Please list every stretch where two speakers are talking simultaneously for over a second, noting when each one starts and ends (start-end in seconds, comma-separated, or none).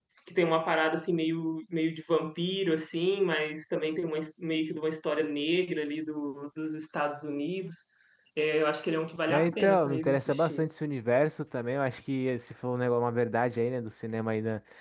9.3-10.6